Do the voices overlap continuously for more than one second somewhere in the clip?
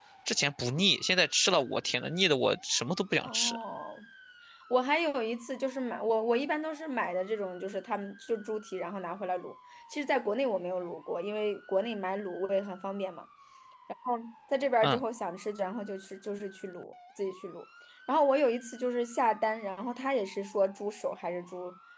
No

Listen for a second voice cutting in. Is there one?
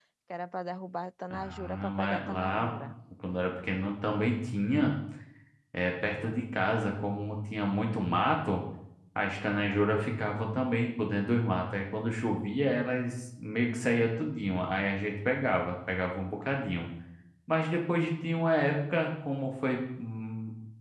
Yes, from 1.3 s

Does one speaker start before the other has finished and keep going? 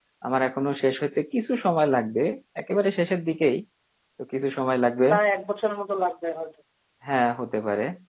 No

